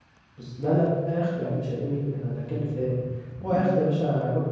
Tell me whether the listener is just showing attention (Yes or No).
Yes